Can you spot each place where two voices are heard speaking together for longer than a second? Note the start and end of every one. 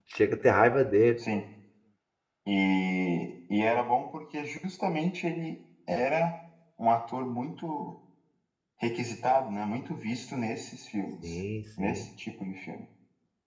none

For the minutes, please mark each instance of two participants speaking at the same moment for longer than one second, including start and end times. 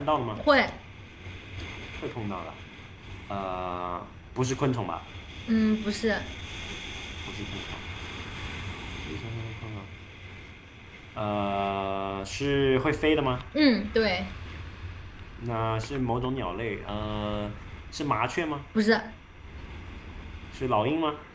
none

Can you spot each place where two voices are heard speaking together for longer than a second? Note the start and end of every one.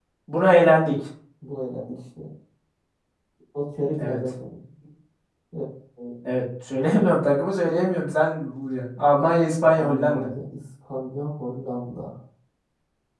none

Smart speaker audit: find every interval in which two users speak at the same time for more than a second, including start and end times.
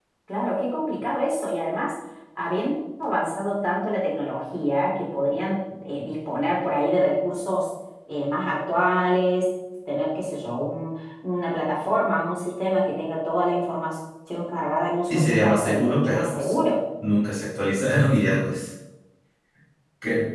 15.1-16.5

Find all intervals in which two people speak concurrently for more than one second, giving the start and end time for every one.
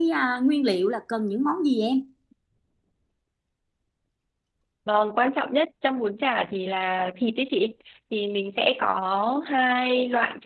none

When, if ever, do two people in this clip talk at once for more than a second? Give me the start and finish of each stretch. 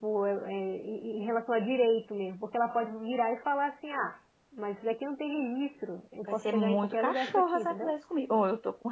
6.2-7.9

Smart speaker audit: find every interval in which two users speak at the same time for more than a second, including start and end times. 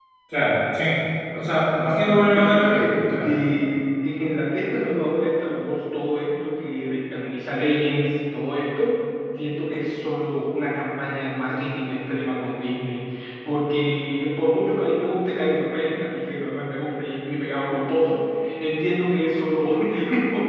1.8-3.2

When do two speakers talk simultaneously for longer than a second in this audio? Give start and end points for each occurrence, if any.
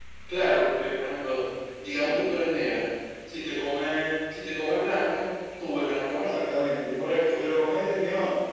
none

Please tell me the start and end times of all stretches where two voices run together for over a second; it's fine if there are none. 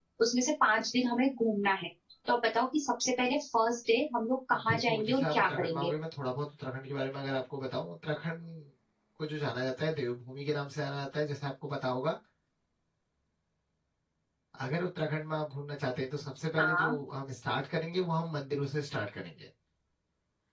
4.7-5.9

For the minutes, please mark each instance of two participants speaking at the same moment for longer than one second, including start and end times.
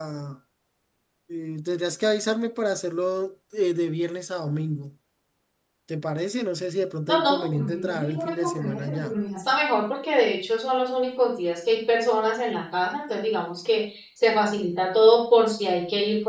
7.1-9.1

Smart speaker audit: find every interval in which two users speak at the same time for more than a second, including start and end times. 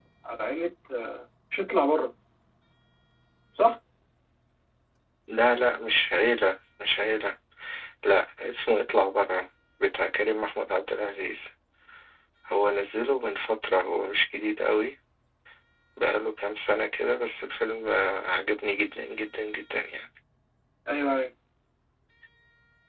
none

